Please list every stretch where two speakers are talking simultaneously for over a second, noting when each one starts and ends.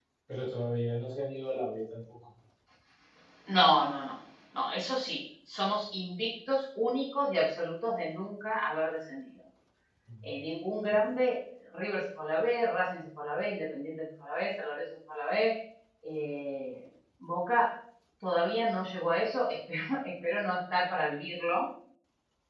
none

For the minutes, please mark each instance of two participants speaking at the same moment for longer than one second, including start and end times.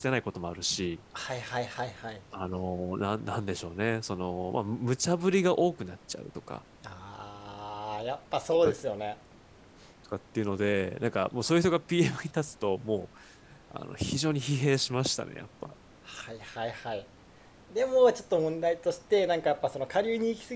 none

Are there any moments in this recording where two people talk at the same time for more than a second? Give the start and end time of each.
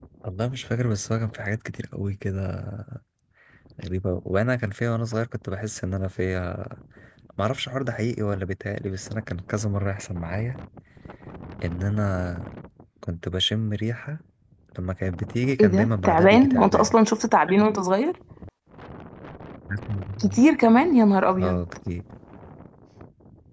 15.6-16.9

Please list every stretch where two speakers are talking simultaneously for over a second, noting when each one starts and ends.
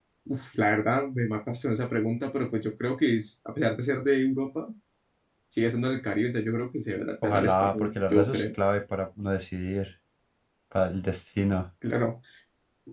7.2-8.4

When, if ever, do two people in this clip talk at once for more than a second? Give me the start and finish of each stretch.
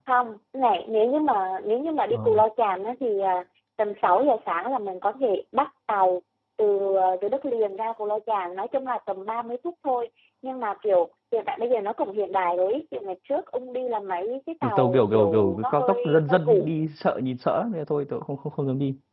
14.6-16.7

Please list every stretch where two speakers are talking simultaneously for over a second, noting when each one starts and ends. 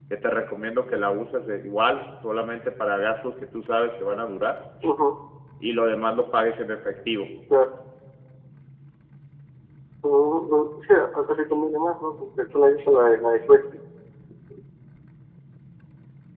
none

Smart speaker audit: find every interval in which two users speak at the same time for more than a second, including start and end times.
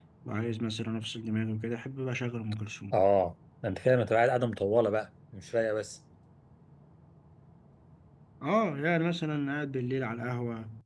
none

